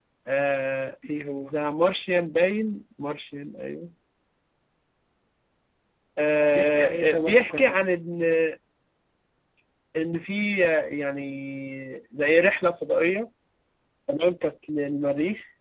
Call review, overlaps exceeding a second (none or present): present